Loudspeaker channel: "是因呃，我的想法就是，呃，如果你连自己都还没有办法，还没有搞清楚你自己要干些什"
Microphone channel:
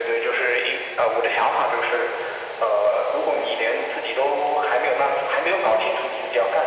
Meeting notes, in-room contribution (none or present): none